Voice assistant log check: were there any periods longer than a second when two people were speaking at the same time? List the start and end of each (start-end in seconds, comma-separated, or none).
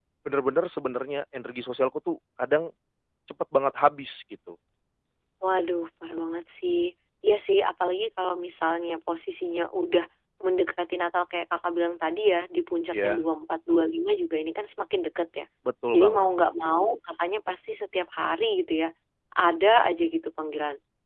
none